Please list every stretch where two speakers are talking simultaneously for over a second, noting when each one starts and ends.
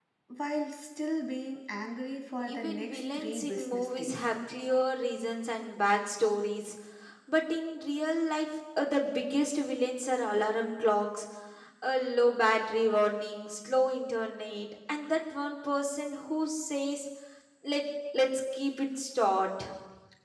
2.4-4.2

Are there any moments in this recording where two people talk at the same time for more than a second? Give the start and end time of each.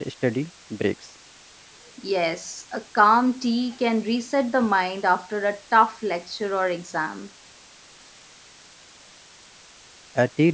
none

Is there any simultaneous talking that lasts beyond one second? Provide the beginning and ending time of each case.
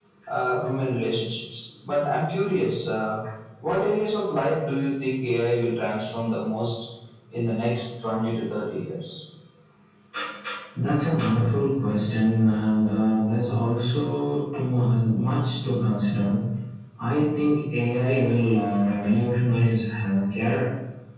none

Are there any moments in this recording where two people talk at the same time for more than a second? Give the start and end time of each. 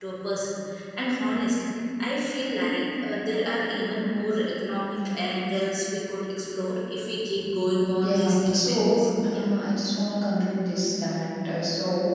8.0-9.4

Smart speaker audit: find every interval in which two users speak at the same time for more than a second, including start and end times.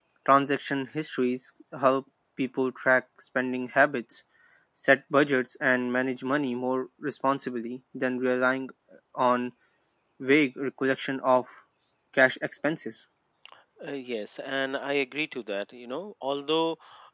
none

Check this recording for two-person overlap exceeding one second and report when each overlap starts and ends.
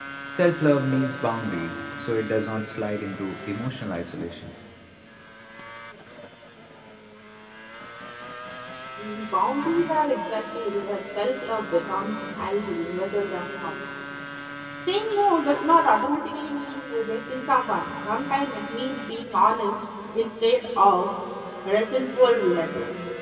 none

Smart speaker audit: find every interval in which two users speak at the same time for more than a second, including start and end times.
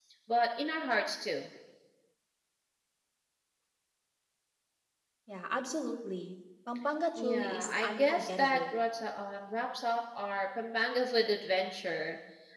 7.2-8.7

